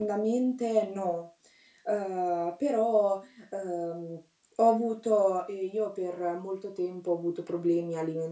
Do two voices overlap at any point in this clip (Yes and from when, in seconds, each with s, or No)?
No